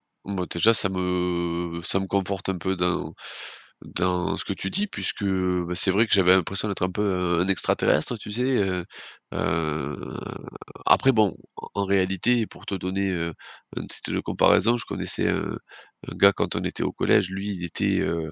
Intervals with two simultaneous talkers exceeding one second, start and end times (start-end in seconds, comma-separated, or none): none